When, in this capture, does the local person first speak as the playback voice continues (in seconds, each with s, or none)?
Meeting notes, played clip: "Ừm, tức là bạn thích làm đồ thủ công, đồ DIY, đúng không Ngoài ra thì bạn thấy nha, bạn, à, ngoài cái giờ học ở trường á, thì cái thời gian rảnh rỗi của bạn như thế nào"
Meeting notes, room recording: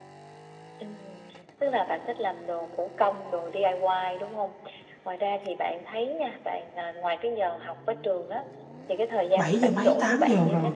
9.3 s